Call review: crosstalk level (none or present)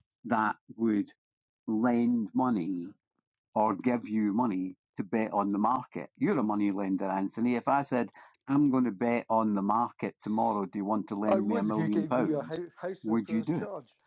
present